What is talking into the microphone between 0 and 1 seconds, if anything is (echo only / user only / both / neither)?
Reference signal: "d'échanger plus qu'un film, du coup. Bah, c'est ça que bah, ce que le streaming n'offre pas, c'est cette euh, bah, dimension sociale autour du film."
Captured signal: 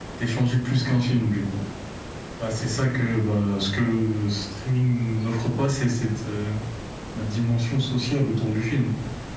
echo only